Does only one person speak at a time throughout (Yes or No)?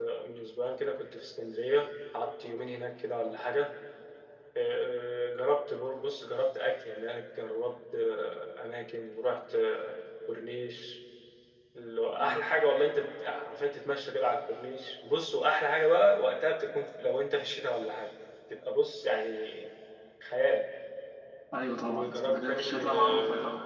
No